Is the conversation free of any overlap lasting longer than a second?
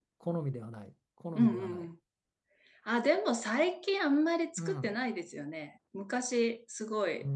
Yes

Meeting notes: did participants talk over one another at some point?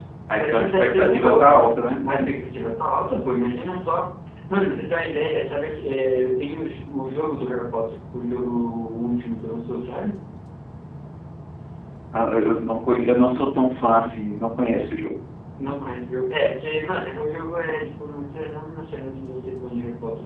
Yes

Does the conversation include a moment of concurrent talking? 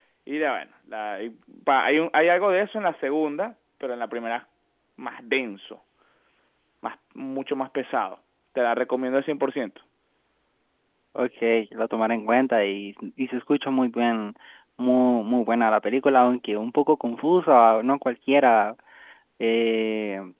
No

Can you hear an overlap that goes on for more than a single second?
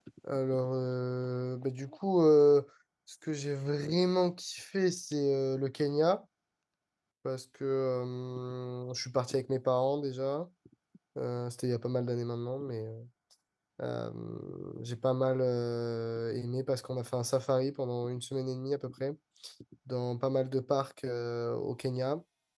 No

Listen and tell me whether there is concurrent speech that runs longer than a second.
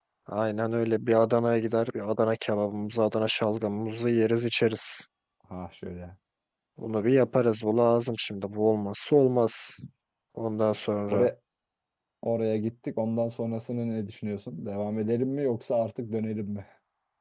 No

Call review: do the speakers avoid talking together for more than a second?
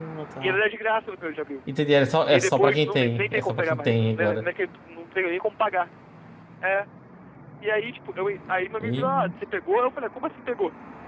No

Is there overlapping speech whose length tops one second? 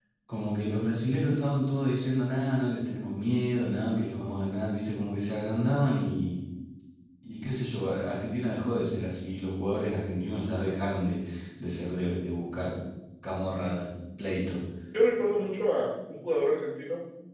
No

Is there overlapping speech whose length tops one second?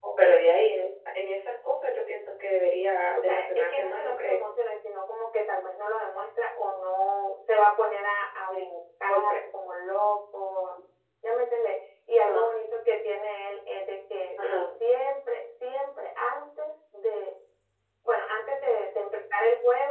Yes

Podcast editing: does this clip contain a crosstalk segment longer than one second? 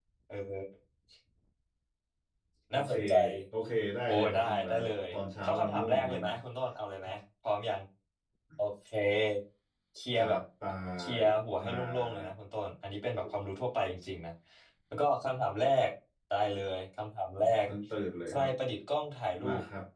Yes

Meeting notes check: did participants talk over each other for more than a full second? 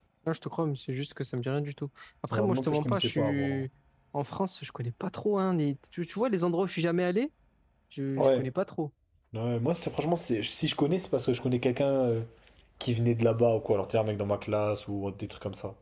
Yes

